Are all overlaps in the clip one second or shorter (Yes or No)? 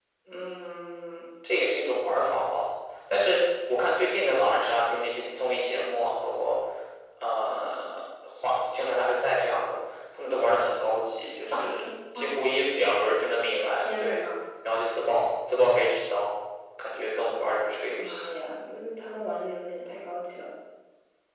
Yes